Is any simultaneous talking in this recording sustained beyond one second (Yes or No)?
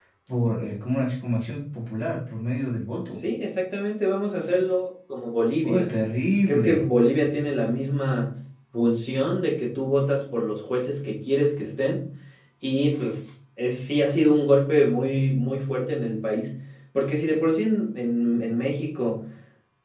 No